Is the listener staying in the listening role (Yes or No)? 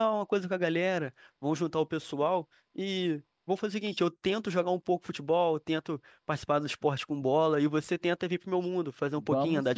No